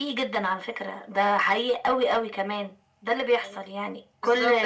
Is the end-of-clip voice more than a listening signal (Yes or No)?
Yes